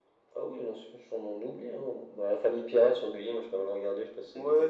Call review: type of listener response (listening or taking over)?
taking over